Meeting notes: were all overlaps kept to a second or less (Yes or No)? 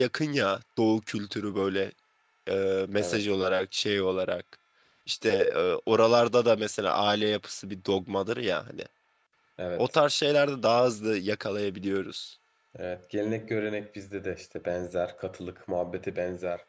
Yes